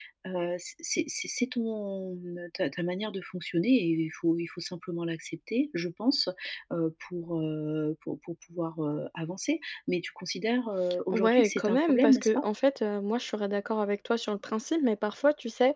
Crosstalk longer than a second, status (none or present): present